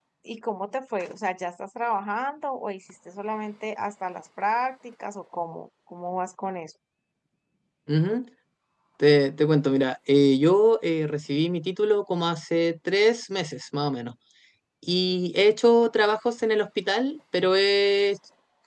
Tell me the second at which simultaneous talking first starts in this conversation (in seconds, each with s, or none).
none